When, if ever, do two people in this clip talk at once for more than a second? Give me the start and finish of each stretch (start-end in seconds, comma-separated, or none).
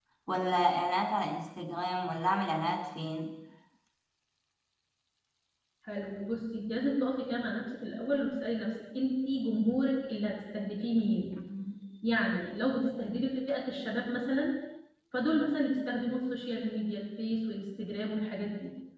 none